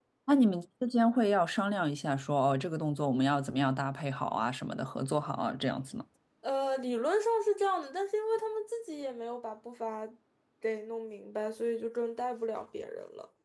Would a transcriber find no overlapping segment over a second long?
Yes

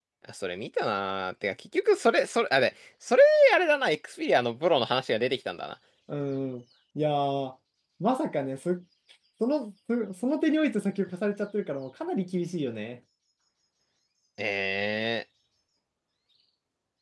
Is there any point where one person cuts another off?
No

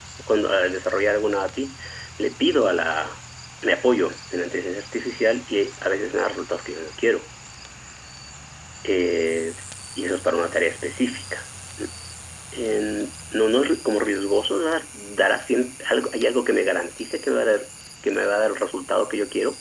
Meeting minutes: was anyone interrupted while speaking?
No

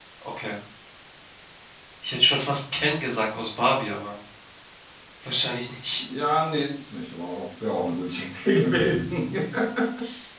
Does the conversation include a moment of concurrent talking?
No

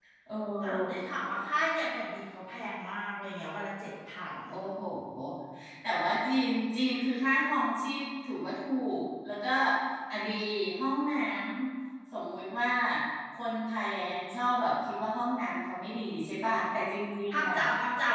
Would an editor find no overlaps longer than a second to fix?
Yes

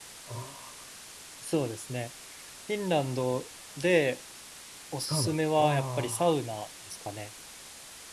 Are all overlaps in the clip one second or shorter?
No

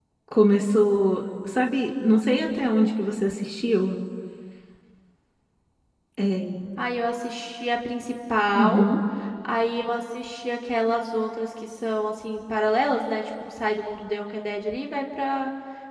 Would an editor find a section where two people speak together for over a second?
No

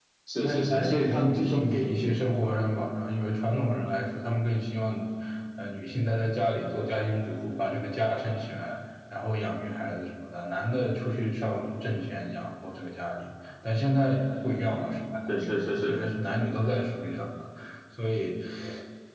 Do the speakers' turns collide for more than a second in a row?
Yes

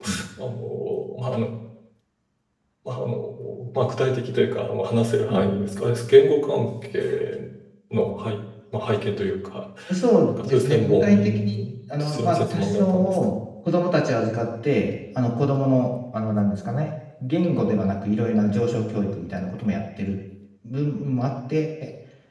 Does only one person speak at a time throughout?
No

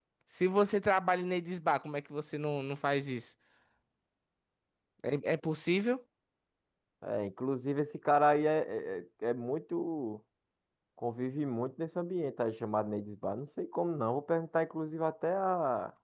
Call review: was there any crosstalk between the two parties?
No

